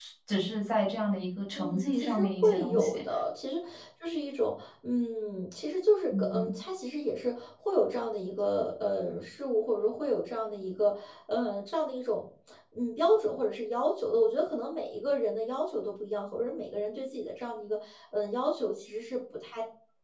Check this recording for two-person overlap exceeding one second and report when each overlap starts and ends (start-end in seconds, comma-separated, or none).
1.6-3.0